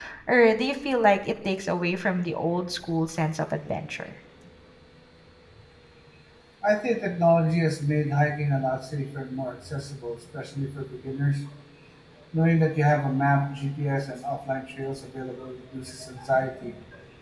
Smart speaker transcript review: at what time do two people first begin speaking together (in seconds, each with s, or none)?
none